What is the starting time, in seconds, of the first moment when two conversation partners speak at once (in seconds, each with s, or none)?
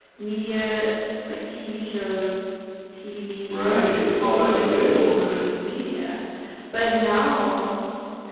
3.5 s